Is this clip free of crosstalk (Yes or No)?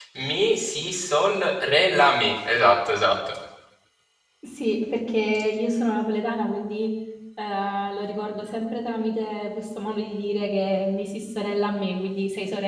Yes